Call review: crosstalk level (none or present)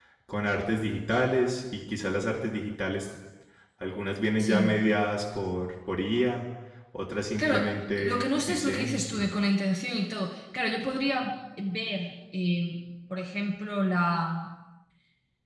present